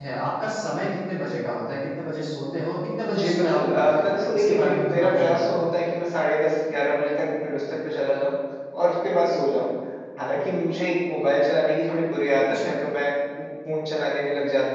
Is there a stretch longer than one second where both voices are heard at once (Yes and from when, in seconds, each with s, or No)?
Yes, from 3.1 s